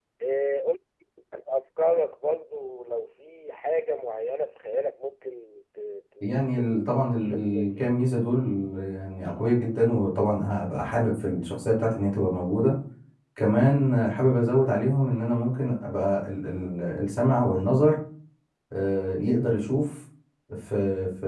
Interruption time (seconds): 6.2 s

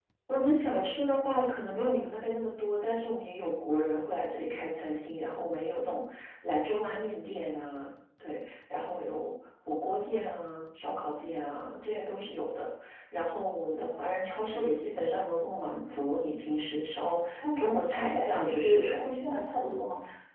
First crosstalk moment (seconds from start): 17.4 s

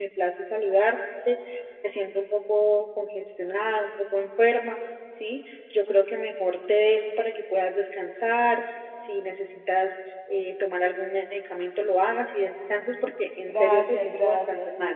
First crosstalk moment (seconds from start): 13.5 s

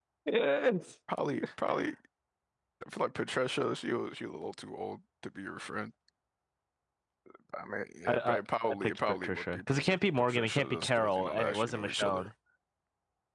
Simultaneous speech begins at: 8.1 s

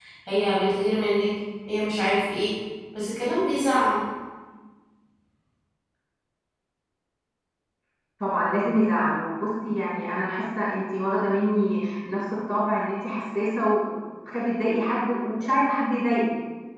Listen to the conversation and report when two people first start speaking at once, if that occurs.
none

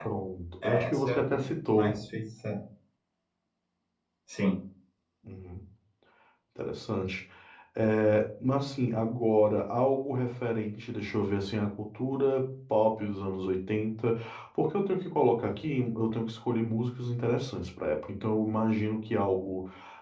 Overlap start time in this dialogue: 0.6 s

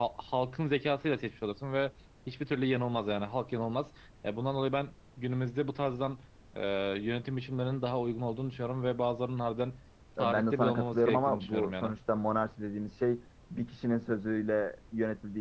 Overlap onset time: 10.2 s

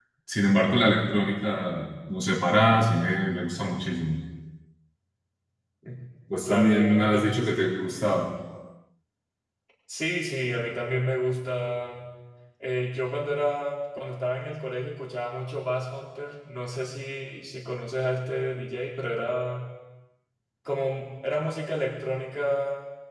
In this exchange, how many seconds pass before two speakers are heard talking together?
6.4 s

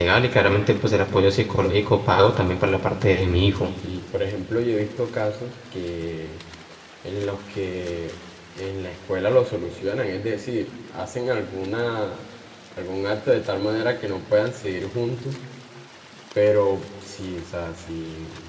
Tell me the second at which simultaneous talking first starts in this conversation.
none

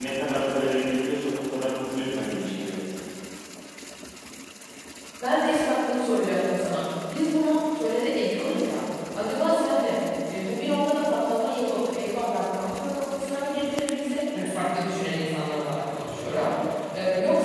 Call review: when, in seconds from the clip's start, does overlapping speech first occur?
none

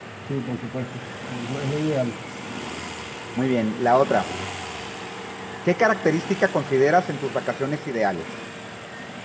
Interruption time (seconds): none

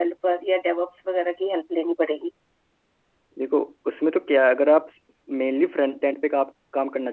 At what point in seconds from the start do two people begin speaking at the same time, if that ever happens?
none

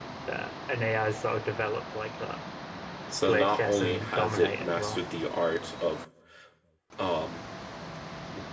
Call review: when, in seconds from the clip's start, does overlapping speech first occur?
3.2 s

